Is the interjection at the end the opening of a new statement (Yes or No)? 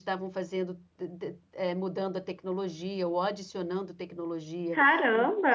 No